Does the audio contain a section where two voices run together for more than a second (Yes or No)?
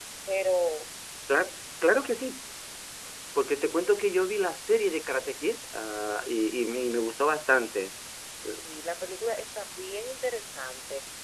No